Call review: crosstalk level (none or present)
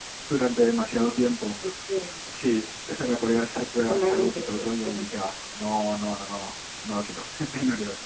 present